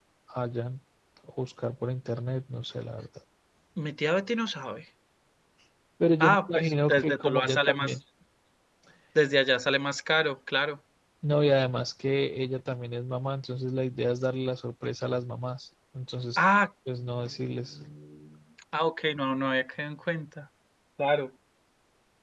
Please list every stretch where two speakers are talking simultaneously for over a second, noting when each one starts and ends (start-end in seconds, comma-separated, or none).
6.2-8.0